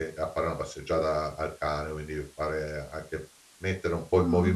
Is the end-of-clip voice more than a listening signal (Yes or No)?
Yes